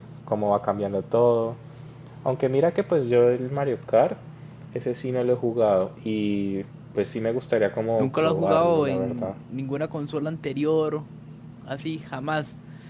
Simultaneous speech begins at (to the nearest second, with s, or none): 8 s